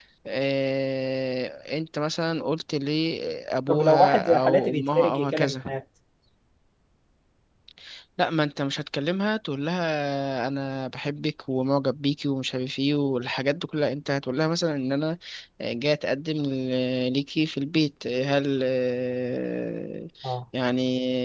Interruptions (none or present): present